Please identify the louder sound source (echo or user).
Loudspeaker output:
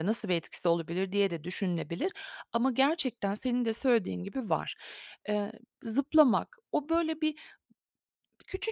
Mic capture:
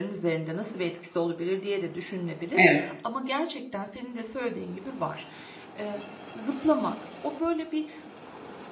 user